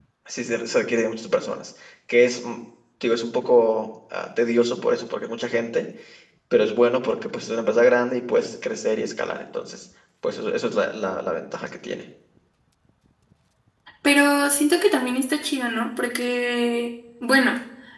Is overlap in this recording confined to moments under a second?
Yes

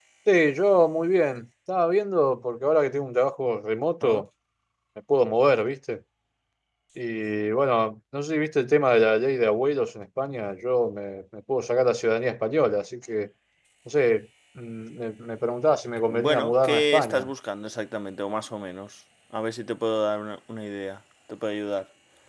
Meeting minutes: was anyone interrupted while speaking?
Yes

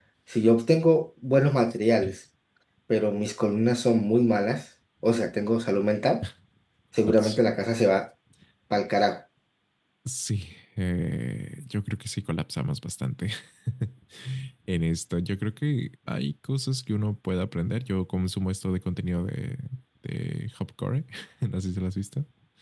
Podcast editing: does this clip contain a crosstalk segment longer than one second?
No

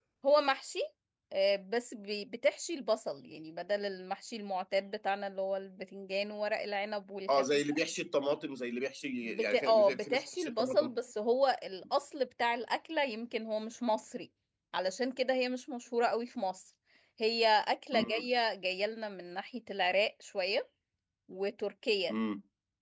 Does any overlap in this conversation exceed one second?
Yes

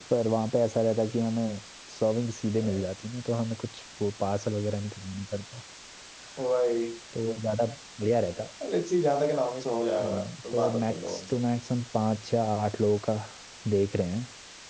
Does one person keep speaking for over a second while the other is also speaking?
Yes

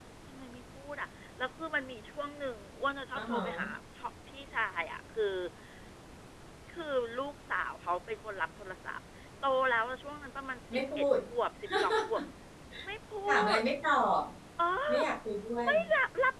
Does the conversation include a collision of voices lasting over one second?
No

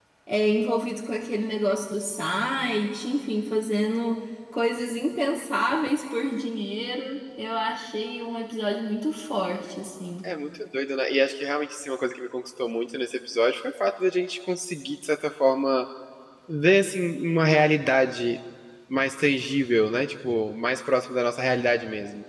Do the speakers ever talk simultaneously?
No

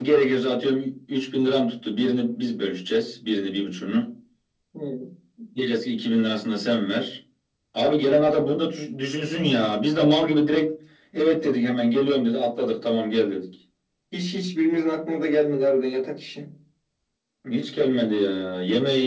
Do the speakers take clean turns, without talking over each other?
Yes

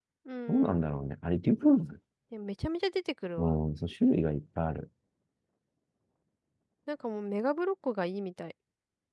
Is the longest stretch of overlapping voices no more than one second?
Yes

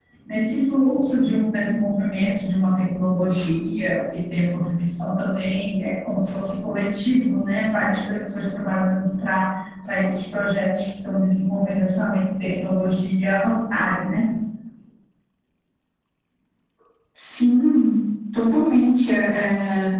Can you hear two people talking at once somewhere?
No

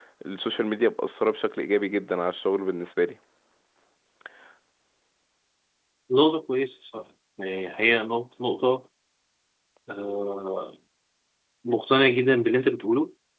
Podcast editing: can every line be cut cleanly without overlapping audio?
Yes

